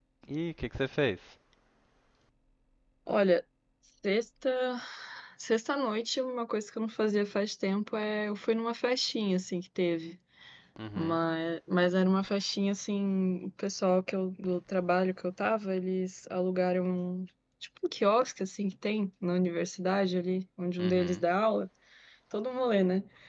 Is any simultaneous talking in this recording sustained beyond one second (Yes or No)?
No